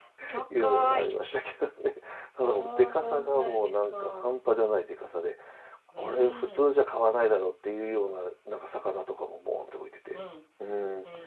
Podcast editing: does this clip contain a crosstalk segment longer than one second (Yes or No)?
Yes